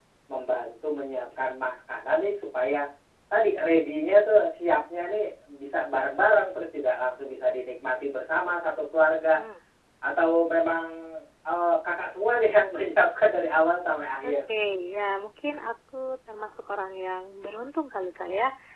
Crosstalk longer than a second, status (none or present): none